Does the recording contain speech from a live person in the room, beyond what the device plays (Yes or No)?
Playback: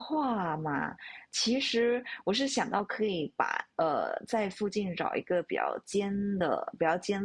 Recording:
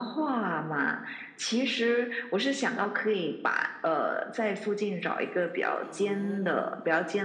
Yes